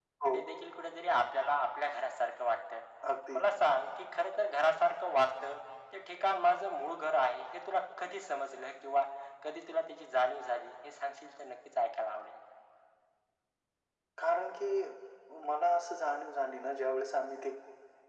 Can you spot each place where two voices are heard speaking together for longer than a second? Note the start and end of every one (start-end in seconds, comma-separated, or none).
none